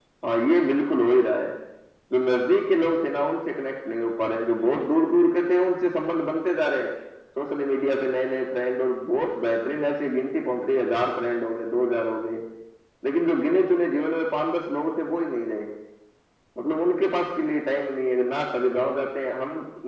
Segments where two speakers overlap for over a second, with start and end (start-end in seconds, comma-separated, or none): none